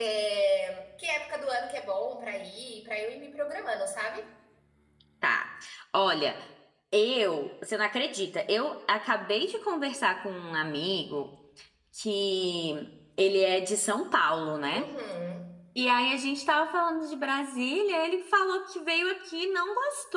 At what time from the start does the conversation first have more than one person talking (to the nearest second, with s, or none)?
none